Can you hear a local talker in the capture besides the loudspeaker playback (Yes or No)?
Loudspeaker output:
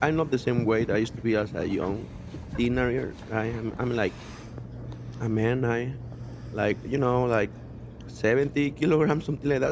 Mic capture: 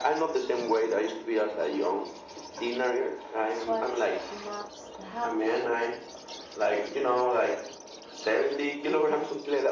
Yes